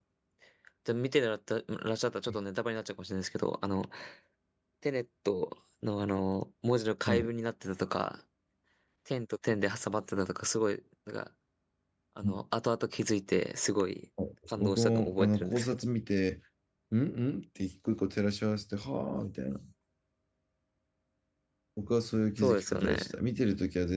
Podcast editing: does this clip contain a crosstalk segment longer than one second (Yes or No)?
Yes